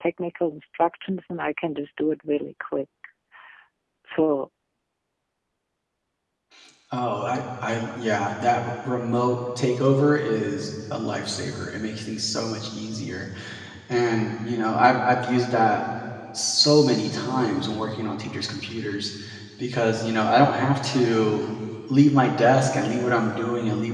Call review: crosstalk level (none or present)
none